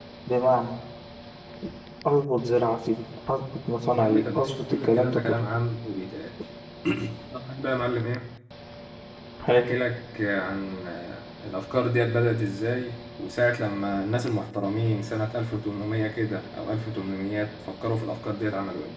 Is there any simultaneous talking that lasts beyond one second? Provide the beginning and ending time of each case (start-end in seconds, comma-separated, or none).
3.9-5.4